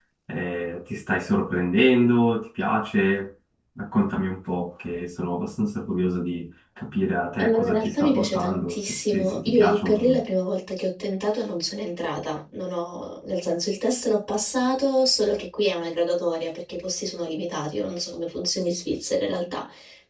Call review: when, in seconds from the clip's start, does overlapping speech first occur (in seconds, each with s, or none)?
7.4 s